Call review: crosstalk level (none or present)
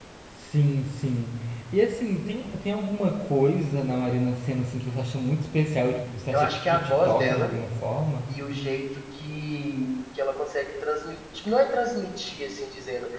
present